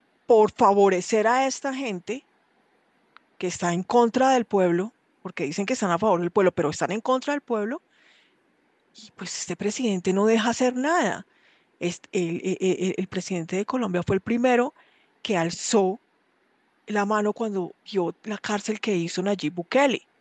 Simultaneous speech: No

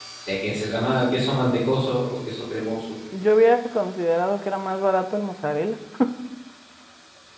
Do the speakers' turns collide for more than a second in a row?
No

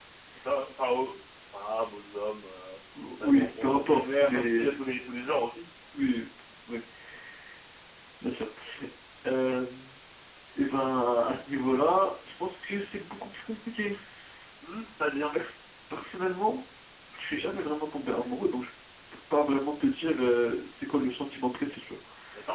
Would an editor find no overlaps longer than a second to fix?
No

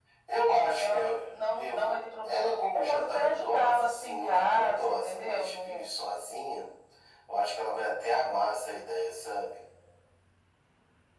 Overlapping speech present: Yes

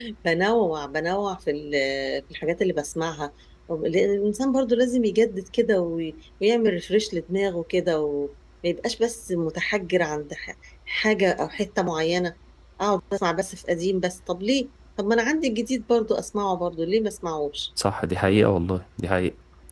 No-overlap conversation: Yes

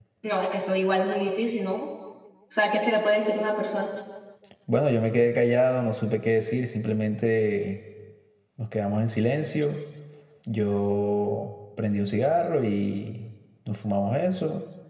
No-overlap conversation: Yes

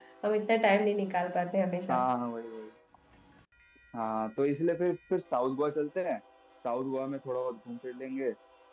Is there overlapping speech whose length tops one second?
No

